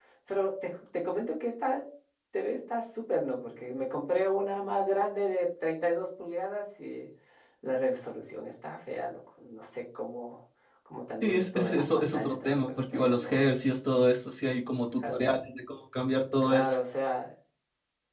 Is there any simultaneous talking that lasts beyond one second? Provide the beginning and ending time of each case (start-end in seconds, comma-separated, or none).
11.2-13.4